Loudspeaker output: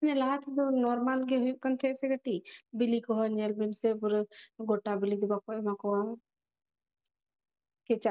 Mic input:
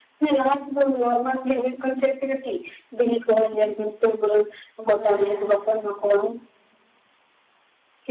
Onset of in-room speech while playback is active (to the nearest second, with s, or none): 5 s